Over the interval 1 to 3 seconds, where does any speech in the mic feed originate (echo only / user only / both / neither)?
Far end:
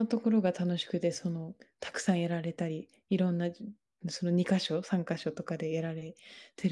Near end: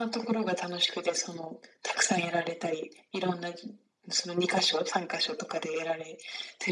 echo only